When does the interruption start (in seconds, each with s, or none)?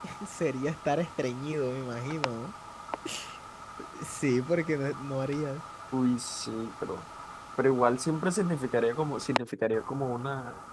none